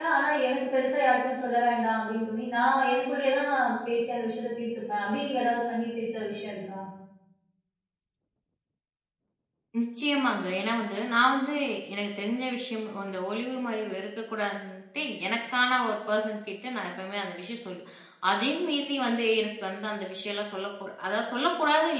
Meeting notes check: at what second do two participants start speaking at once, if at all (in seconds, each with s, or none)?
none